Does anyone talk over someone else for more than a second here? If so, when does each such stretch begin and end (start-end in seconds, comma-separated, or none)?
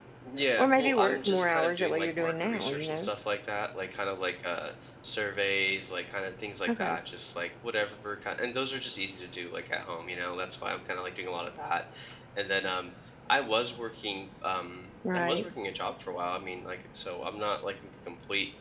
0.6-3.1